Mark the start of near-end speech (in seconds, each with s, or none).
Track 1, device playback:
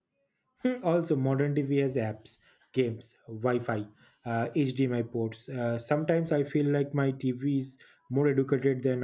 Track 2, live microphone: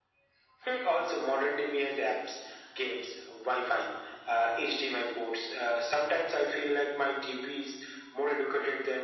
none